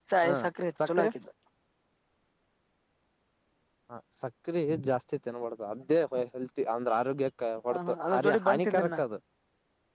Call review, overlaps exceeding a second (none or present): present